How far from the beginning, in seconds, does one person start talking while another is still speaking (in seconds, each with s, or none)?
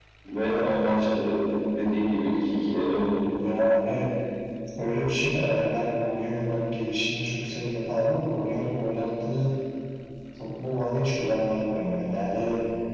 none